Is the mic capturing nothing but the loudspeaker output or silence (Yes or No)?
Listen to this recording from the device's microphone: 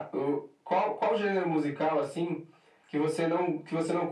Yes